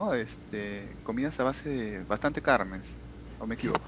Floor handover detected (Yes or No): Yes